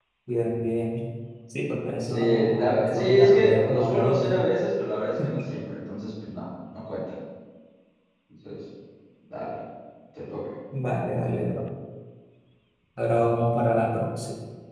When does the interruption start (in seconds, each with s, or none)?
2.1 s